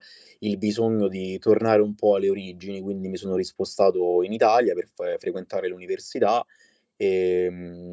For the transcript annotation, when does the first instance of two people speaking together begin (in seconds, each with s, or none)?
none